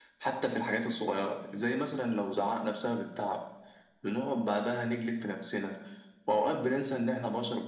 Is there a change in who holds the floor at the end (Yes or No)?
No